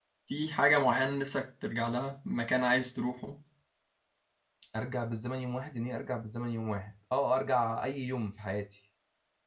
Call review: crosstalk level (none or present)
none